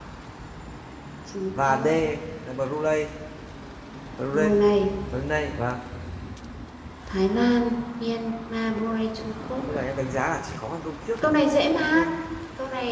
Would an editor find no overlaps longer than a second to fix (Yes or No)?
Yes